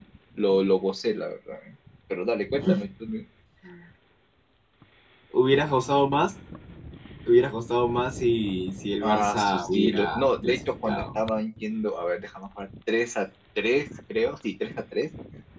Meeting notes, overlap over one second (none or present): present